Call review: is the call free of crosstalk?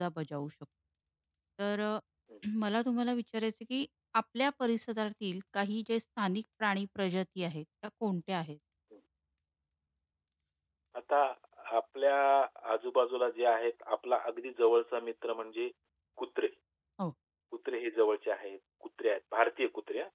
Yes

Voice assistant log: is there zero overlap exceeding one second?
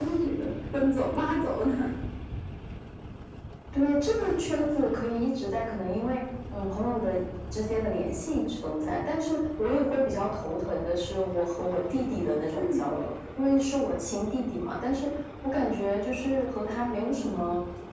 Yes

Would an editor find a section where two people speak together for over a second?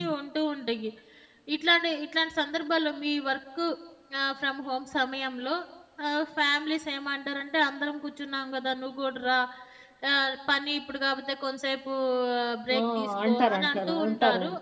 Yes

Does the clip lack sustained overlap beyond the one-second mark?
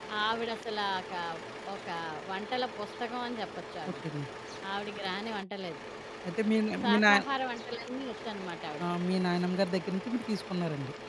Yes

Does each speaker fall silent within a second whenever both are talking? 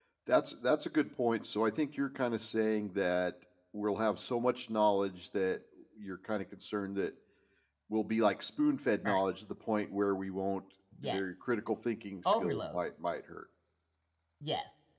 Yes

